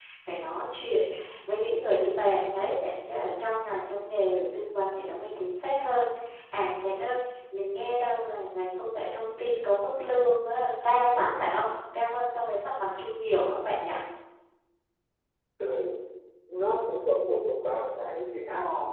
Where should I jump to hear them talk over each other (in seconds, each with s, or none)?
none